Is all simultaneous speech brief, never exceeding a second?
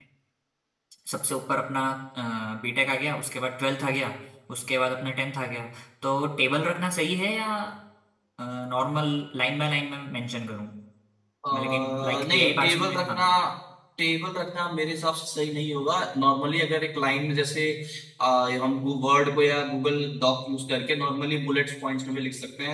No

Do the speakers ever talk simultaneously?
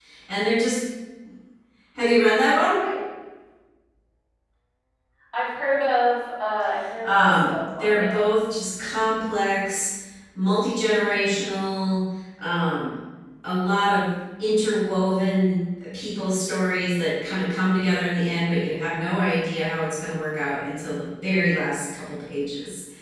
Yes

